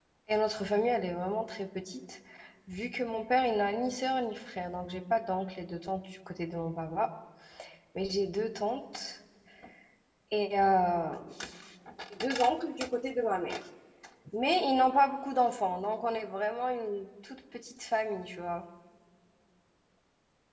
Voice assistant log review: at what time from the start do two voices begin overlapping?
none

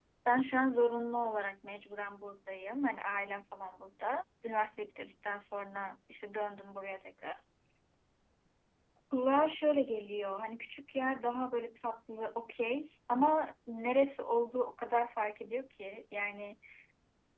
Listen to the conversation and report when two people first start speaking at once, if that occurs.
none

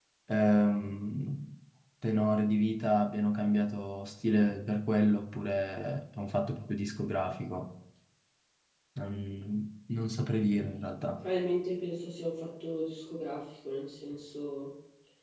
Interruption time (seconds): none

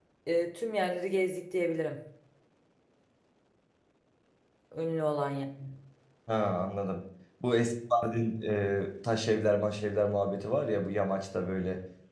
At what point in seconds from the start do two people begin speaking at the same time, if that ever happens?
none

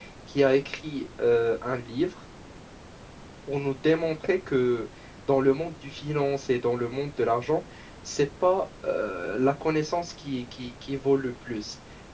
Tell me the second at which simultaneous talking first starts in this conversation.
none

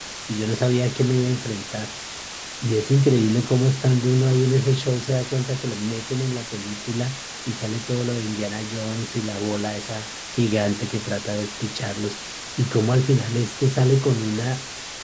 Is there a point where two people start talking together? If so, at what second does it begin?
none

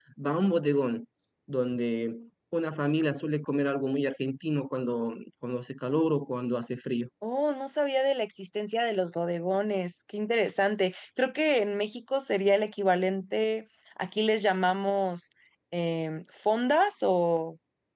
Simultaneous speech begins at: none

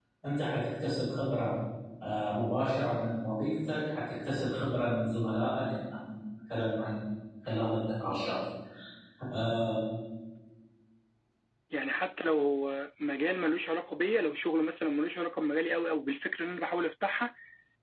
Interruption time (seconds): none

